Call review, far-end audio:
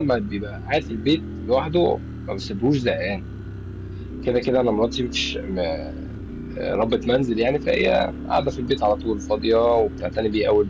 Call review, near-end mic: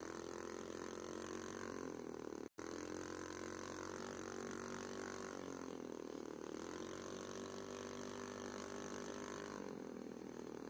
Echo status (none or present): none